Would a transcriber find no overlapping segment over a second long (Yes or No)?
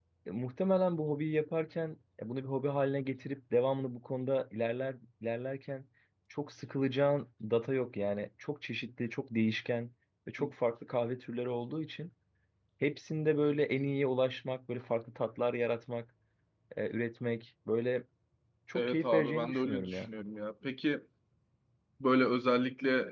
No